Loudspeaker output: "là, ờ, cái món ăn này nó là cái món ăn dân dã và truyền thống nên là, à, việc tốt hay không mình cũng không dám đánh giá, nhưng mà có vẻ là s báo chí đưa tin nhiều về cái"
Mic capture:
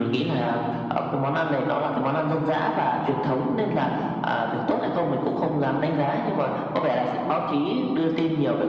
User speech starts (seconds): none

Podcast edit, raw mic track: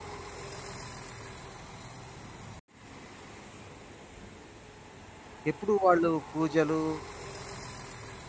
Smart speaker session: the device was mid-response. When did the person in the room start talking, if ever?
5.5 s

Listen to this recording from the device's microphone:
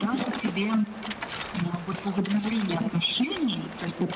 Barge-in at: none

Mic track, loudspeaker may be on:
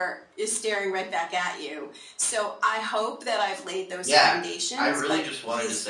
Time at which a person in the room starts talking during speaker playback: 4.0 s

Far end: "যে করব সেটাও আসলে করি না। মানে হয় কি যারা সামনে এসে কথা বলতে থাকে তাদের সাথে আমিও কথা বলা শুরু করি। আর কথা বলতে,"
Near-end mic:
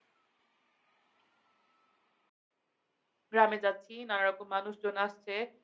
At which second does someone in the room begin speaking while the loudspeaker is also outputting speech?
3.3 s

